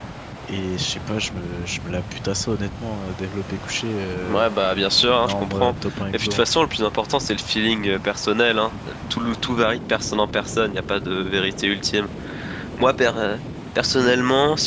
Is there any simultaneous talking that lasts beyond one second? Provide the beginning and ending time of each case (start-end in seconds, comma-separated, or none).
5.2-6.5